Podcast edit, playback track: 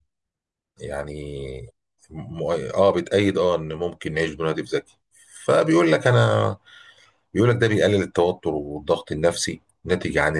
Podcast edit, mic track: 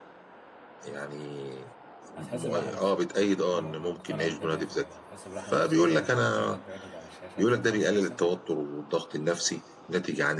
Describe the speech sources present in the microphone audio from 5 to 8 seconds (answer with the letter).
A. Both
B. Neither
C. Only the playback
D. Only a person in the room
A